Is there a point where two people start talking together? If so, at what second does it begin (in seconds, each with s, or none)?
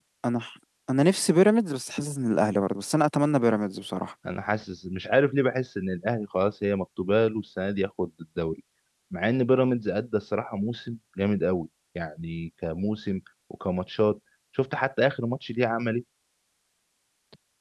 none